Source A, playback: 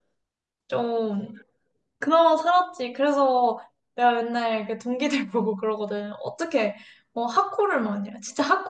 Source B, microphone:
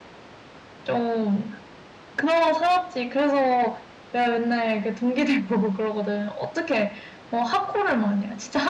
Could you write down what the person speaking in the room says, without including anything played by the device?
none

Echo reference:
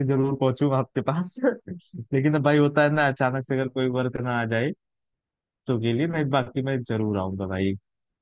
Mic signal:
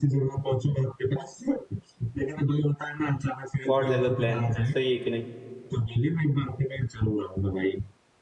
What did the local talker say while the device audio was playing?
गॉड हैज अ प्लान सही है कि नहीं

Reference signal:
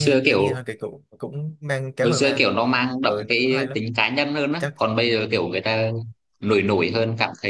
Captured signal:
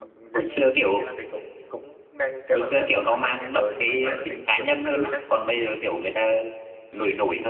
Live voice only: nó nhẹ nhàng hơn nhưng mà tao lại thích kiểu hồi xưa hơn.

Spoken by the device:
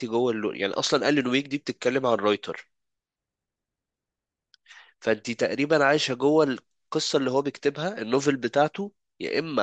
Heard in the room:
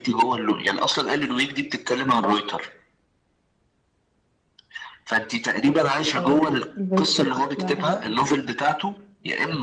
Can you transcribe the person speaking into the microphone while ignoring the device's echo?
اه الفايبس بتاعتها شكلها حلو قوي

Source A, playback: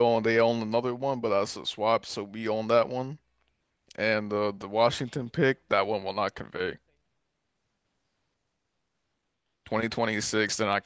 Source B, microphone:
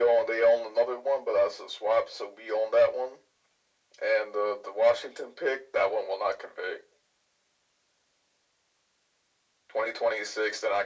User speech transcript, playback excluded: none

